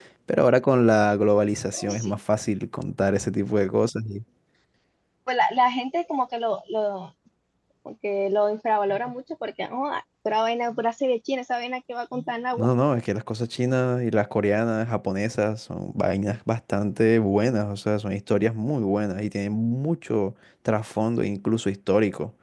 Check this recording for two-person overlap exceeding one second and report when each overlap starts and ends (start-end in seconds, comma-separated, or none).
none